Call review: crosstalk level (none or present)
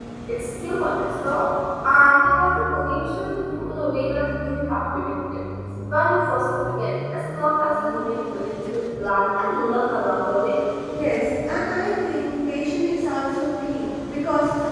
none